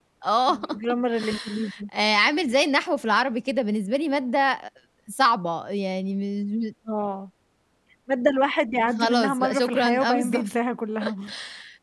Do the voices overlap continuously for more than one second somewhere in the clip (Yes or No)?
Yes